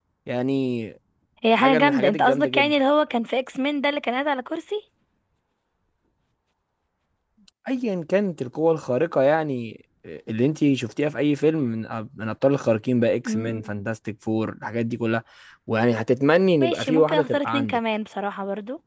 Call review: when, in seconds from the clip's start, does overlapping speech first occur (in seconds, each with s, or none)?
1.5 s